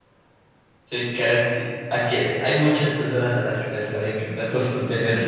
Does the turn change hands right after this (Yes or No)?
Yes